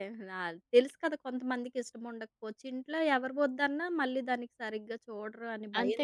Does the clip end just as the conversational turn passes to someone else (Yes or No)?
Yes